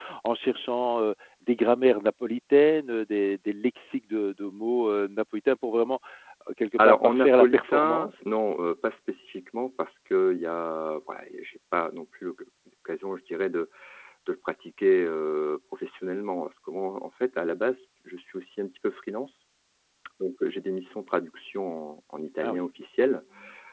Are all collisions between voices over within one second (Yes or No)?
No